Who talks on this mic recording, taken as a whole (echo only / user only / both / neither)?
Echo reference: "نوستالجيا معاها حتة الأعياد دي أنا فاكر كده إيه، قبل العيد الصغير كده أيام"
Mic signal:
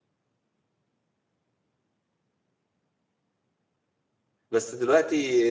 user only